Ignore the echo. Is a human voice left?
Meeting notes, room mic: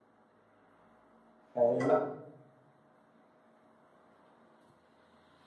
Yes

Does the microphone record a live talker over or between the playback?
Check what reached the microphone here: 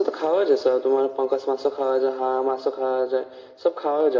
No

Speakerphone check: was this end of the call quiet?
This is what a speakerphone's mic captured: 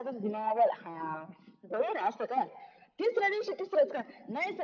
Yes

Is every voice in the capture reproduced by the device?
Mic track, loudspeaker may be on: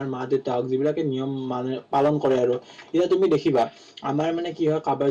No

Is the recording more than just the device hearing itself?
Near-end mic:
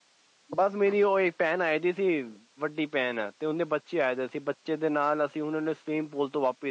Yes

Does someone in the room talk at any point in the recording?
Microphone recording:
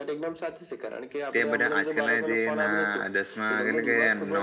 Yes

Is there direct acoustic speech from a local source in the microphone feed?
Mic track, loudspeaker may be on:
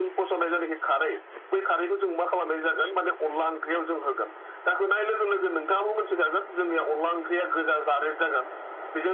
No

